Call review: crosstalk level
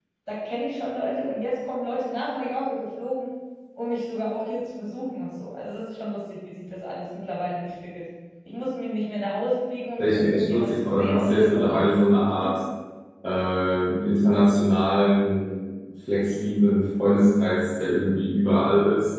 present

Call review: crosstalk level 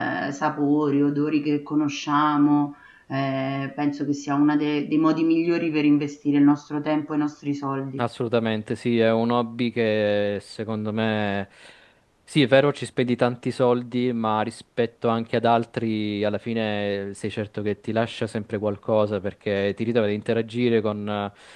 none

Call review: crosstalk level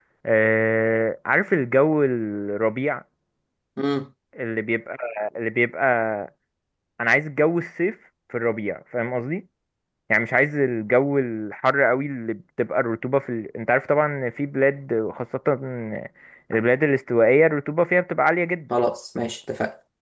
none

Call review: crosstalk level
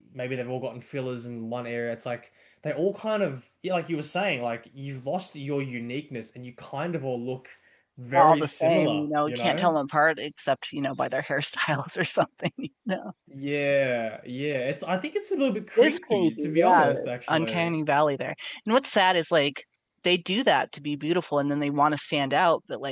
present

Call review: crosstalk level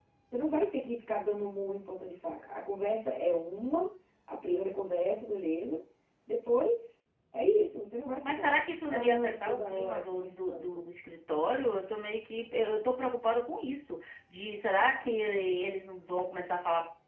present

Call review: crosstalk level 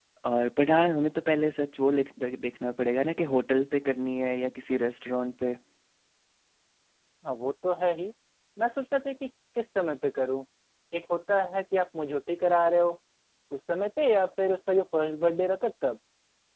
none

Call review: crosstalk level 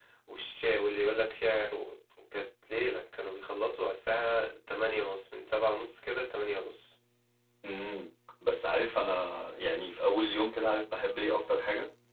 none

